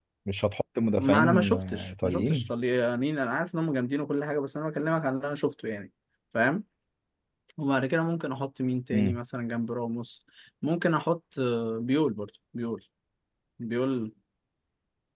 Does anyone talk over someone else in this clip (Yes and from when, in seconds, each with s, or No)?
Yes, from 1.0 s